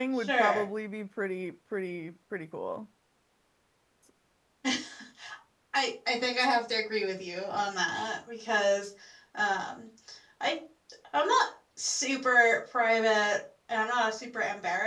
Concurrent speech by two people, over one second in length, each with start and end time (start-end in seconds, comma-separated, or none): none